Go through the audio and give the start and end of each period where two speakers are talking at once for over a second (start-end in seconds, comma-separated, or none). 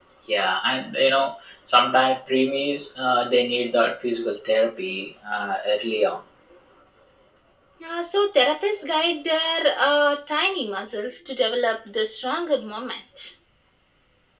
none